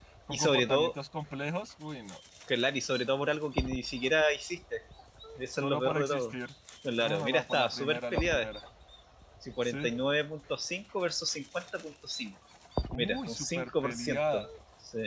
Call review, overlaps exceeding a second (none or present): present